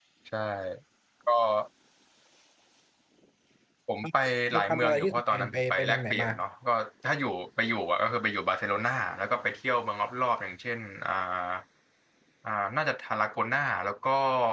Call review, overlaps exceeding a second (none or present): present